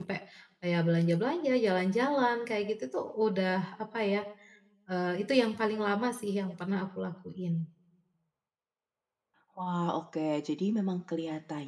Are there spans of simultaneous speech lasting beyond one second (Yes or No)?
No